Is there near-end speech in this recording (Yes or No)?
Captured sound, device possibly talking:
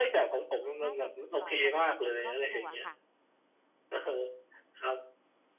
Yes